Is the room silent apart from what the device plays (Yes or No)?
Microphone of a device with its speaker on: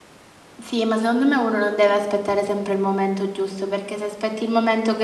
No